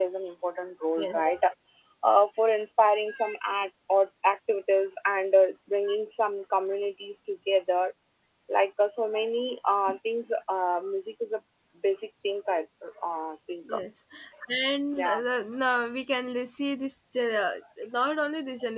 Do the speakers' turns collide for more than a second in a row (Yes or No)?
No